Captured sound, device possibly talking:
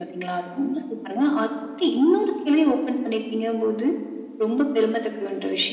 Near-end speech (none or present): none